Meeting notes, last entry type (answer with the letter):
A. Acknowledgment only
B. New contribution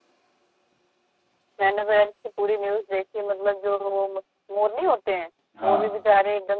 A